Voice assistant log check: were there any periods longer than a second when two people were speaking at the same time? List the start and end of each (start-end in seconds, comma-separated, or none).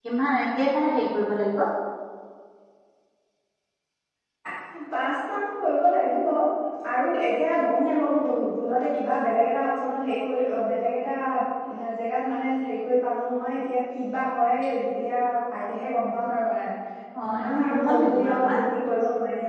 17.2-18.6